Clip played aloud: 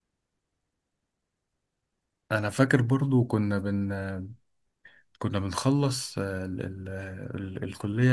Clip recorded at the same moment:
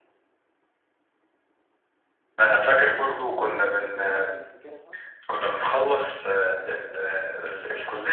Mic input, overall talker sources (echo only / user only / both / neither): both